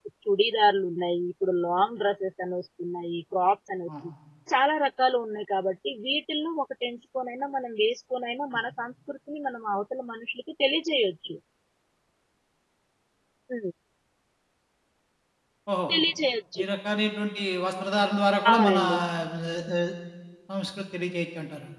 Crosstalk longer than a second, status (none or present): none